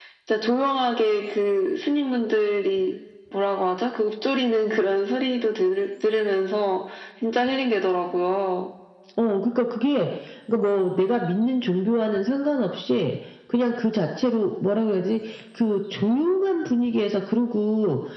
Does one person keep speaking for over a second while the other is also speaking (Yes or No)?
No